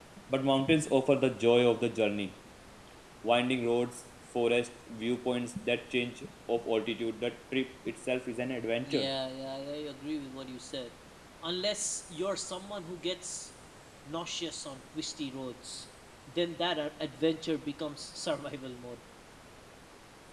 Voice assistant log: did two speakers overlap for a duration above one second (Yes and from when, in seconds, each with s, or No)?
No